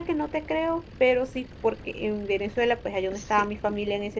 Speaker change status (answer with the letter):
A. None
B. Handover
A